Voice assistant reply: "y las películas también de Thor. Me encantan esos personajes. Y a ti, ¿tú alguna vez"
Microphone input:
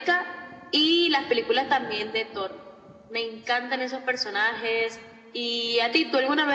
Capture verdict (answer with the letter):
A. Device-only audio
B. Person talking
A